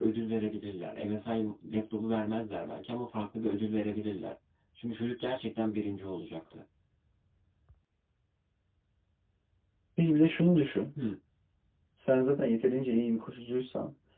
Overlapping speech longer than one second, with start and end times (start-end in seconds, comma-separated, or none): none